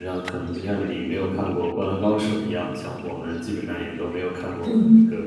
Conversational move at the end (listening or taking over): listening